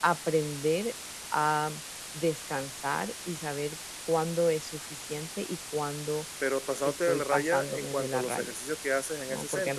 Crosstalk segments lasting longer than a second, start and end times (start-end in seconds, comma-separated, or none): 6.8-8.5